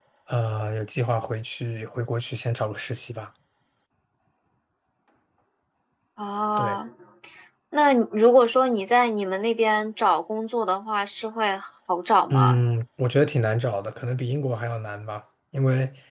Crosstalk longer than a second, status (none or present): none